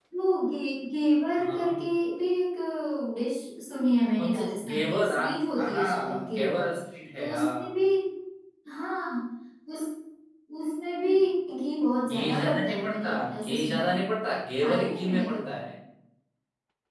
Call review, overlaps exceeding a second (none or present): present